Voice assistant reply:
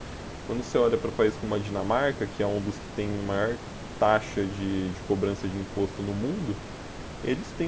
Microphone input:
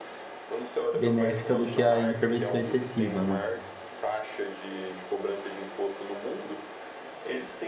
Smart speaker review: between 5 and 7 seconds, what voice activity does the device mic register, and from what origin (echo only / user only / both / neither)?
echo only